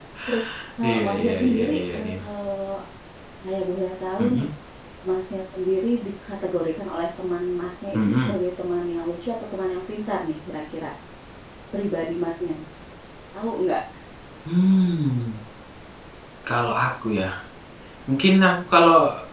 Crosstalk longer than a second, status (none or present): present